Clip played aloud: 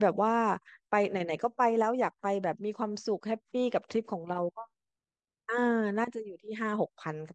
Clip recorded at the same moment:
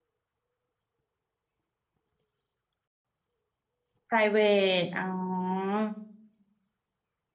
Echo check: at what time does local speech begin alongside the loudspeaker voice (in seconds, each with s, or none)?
4.1 s